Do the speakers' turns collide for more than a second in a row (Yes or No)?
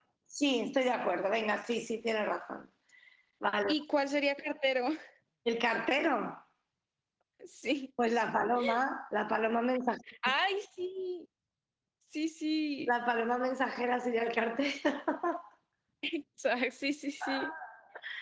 No